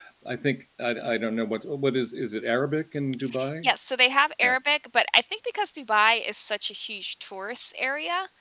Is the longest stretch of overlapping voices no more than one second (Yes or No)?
Yes